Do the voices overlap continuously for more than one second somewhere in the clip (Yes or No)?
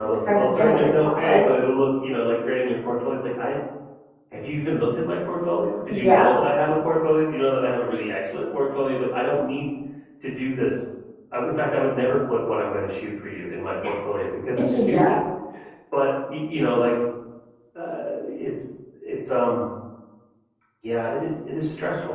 Yes